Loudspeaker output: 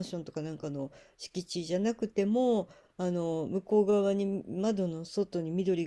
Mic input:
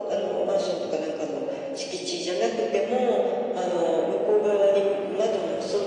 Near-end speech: none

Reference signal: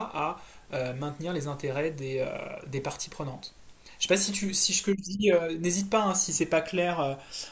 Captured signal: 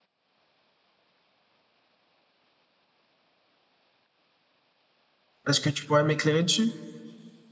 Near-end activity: present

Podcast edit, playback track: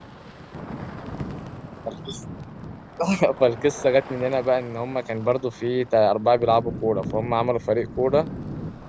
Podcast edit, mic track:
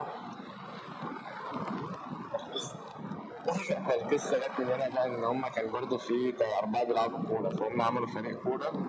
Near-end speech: none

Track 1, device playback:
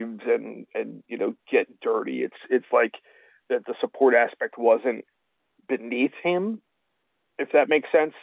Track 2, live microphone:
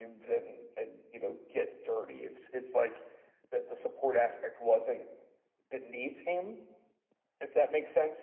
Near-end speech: none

